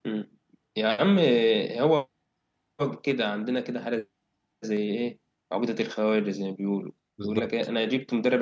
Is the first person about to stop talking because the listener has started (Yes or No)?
No